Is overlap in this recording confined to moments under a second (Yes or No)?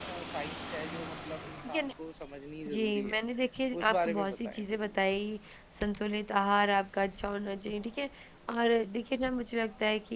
No